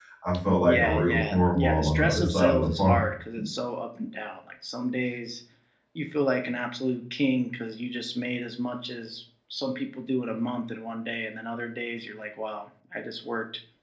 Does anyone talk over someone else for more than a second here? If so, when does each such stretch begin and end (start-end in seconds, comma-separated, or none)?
0.6-2.9